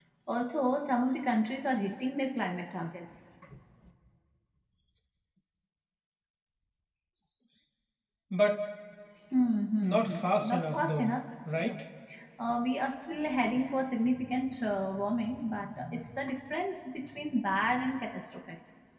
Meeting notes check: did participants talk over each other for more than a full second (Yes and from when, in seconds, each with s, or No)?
Yes, from 9.8 s